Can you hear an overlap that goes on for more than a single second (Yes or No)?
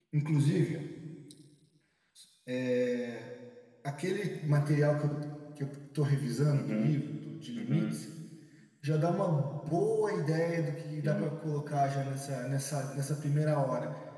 No